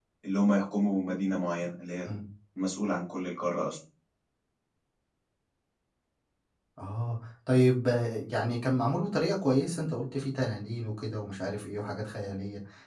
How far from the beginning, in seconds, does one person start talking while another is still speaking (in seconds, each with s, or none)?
none